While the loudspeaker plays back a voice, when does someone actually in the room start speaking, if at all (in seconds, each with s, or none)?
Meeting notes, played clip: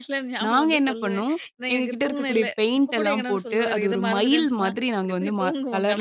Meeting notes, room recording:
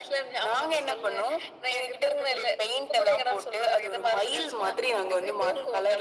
none